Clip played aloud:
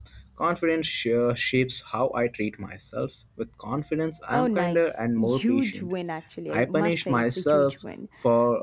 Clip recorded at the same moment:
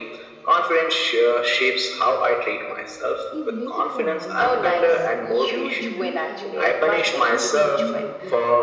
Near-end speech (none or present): present